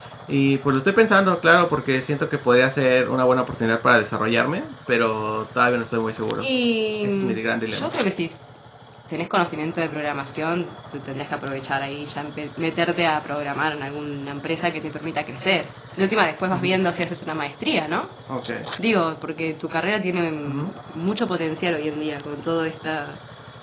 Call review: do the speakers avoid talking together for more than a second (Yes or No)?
Yes